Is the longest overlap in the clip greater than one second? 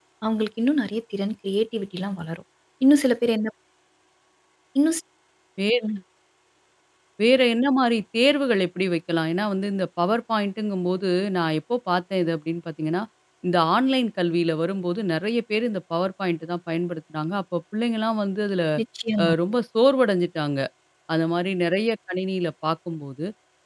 No

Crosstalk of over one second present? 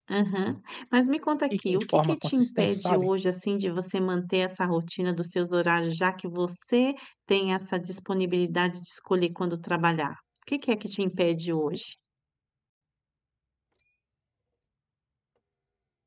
Yes, from 1.5 s

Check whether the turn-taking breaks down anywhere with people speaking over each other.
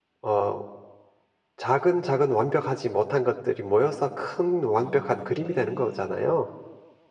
Yes, from 4.8 s

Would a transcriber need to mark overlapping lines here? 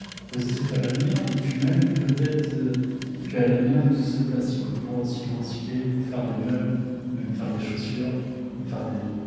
No

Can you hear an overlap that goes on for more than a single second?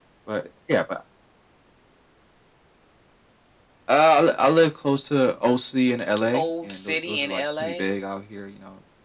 Yes, from 6.3 s

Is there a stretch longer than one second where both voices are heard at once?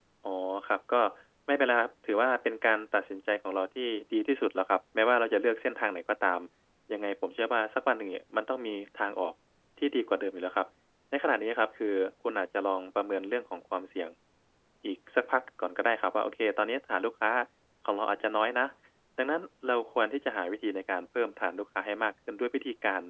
No

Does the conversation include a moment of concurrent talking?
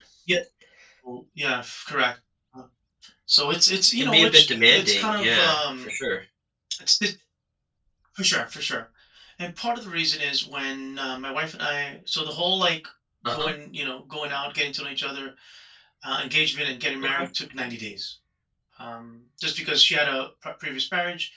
Yes, from 3.9 s

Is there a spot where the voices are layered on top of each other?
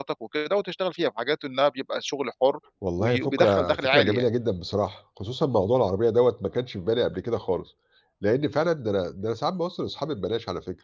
Yes, from 3.0 s

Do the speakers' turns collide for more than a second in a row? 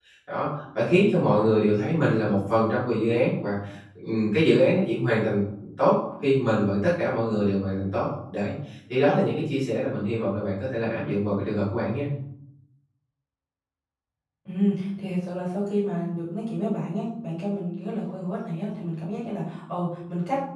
No

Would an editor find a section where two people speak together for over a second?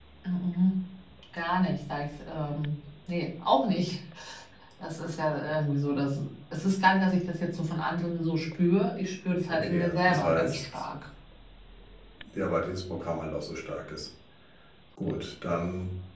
Yes, from 9.5 s

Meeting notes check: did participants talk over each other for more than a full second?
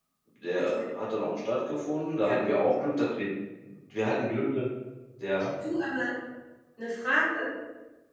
No

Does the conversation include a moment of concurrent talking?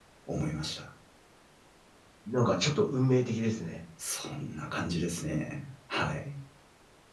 No

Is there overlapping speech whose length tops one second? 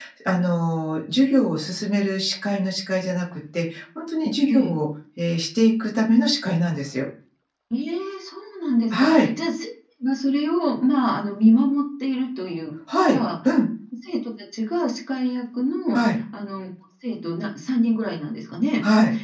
No

